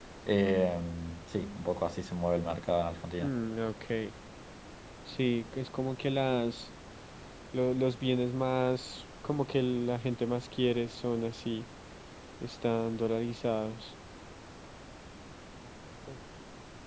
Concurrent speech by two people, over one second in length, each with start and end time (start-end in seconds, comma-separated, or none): none